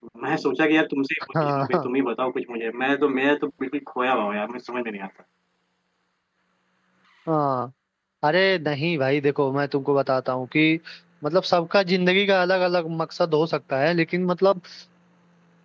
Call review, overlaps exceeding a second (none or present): none